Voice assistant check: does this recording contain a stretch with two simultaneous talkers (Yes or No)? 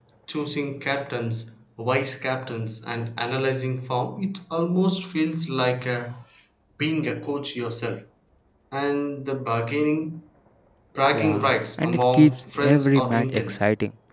Yes